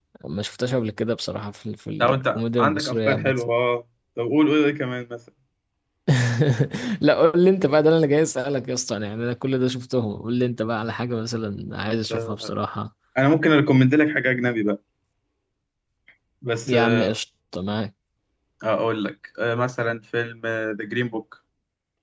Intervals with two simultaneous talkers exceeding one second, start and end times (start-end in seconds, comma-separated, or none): 2.0-3.4